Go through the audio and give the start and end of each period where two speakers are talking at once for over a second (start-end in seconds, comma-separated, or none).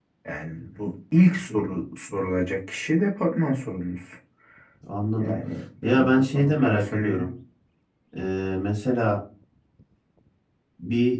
5.9-7.3